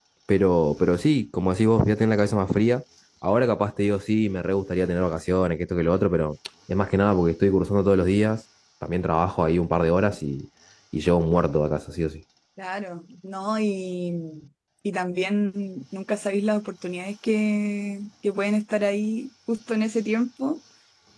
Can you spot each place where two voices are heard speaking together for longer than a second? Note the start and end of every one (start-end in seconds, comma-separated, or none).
none